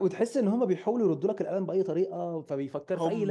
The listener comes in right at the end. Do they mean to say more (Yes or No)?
Yes